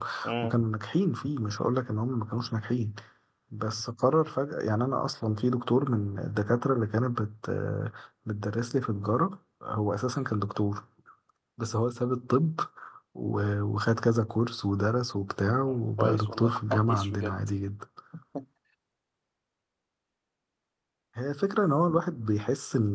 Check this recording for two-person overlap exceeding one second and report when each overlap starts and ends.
16.0-17.4

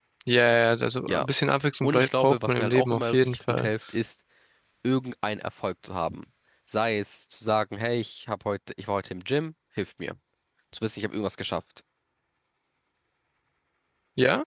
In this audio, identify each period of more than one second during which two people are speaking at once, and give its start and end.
1.8-3.7

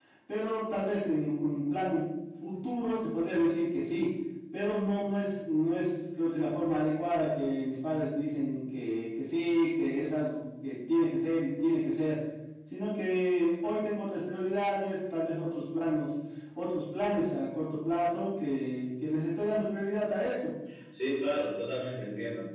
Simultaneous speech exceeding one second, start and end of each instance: none

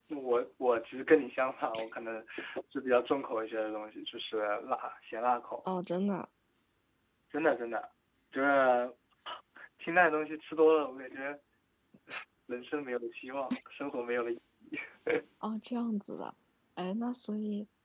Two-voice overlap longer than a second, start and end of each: none

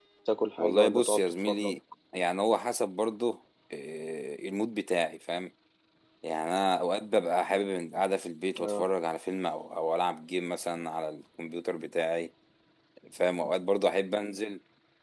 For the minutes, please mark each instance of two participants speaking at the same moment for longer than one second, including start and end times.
0.6-1.8

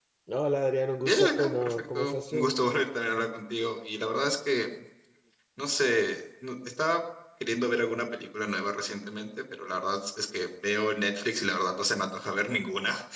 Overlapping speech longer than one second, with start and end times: 1.0-2.5

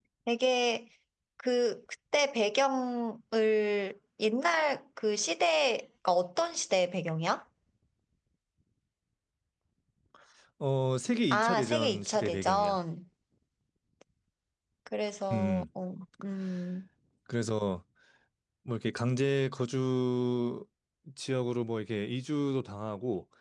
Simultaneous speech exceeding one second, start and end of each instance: 11.3-12.8

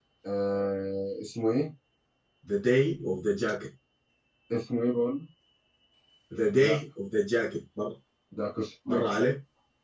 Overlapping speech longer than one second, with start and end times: none

